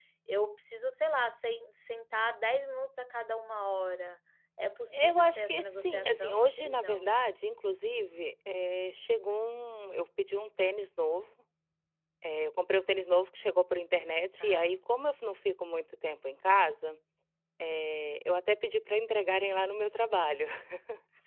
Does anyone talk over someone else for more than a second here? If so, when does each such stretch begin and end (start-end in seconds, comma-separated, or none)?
4.9-7.1